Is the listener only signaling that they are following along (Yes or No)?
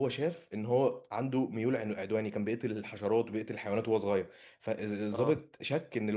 Yes